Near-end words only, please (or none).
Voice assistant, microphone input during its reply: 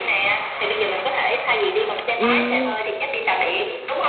Ừm,